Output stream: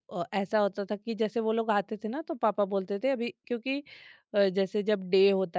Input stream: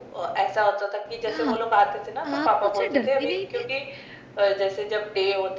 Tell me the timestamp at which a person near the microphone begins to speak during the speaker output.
1.3 s

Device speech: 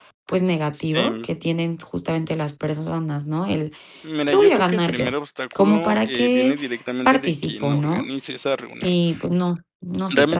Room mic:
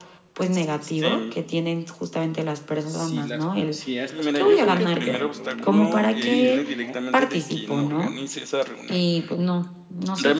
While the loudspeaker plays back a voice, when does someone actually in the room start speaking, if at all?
2.8 s

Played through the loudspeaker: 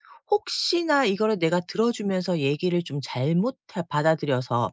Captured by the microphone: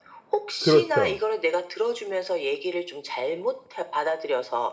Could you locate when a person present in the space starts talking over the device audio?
0.6 s

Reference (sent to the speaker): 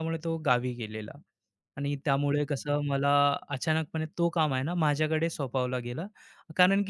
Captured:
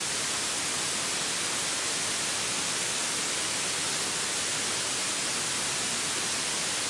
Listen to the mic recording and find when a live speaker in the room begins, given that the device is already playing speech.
none

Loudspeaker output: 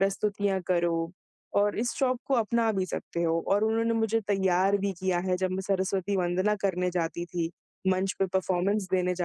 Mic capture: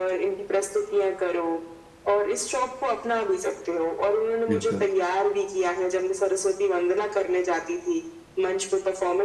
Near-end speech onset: 4.5 s

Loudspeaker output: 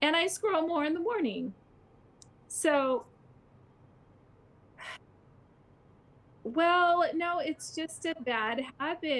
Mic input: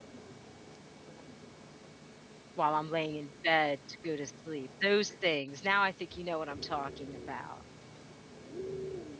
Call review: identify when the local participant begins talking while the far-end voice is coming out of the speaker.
2.5 s

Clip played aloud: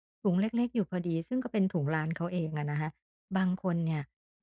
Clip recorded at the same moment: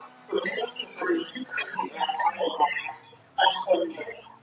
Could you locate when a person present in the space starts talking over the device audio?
none

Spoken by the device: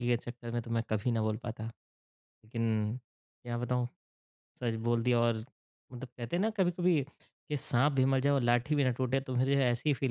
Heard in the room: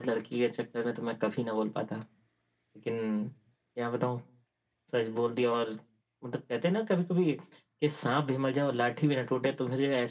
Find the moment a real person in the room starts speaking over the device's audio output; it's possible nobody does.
none

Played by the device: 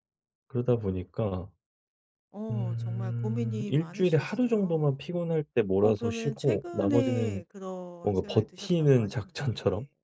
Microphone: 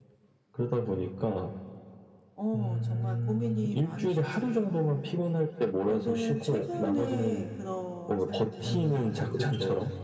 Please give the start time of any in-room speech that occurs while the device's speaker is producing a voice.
8.6 s

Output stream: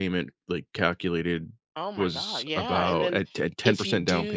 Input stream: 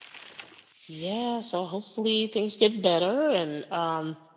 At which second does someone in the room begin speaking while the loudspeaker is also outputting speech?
0.9 s

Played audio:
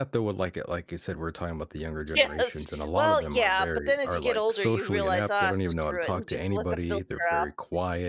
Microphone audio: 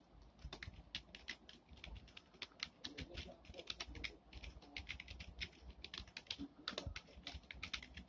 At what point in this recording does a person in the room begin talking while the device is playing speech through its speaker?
none

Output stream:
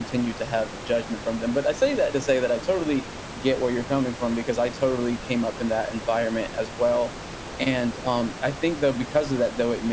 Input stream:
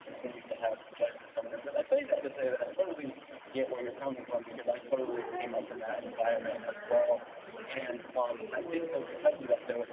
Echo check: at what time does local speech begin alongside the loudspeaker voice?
5.0 s

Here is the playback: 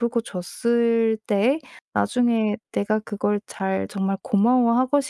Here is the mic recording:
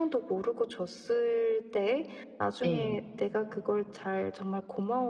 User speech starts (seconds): 2.6 s

